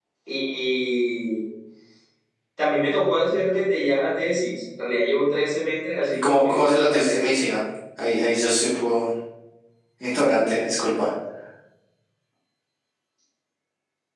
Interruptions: present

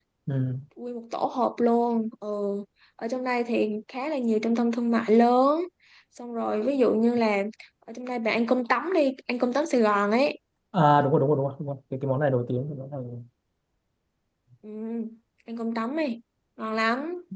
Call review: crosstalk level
none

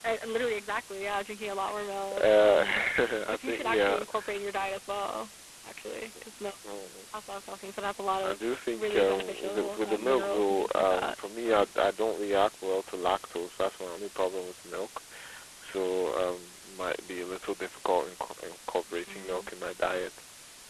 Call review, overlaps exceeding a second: present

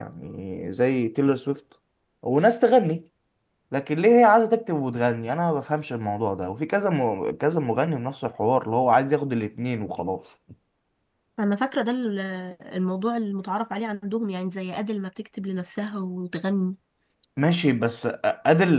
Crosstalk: none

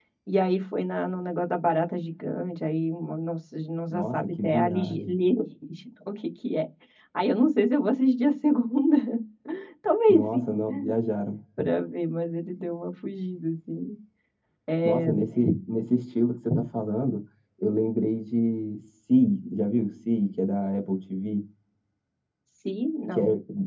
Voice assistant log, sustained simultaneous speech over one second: present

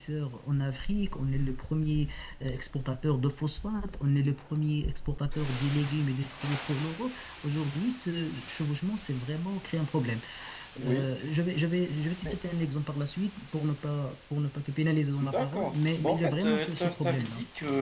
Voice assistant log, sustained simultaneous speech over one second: present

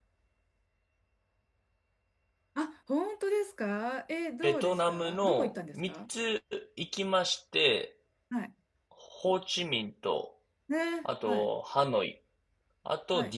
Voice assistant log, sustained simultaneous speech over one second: present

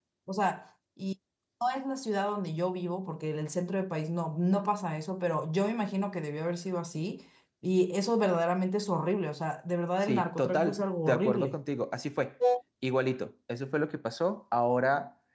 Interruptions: present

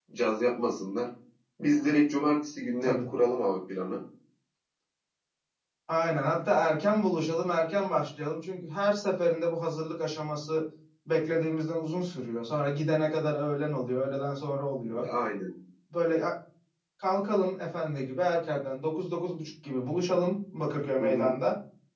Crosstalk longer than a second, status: none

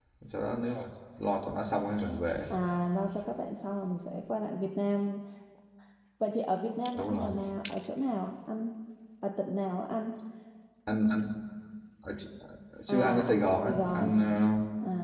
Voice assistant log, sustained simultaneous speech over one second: present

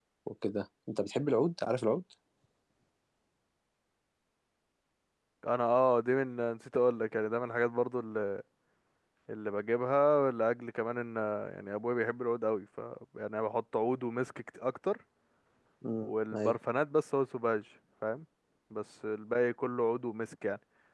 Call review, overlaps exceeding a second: none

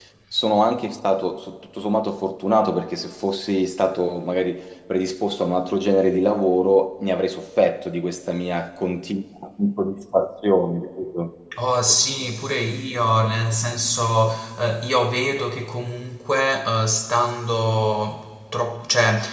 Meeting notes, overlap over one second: none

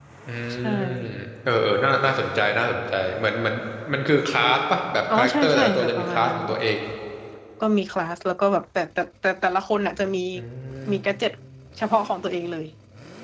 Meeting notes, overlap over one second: present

